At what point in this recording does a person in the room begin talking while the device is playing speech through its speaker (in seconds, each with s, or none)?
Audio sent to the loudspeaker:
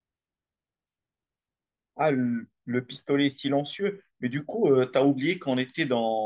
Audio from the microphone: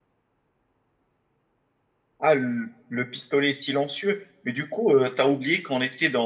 none